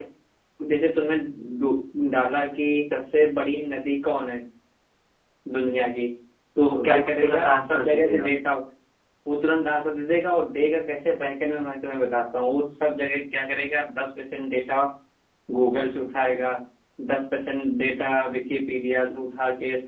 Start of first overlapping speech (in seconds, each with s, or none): 6.7 s